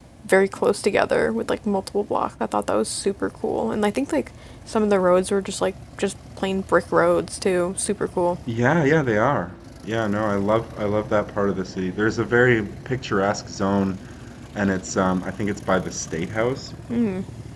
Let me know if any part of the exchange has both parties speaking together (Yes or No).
No